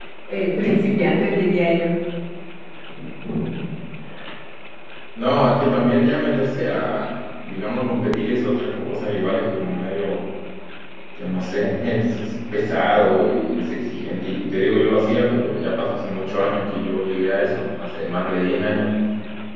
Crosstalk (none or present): none